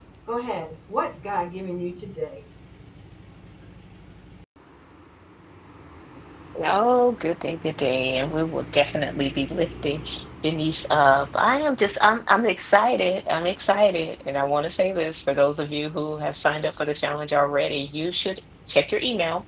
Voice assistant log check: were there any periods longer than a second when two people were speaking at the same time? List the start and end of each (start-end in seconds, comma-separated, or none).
none